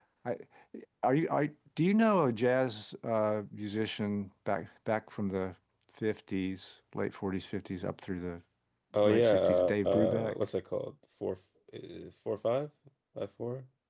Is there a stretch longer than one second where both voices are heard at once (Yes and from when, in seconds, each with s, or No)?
Yes, from 9.1 s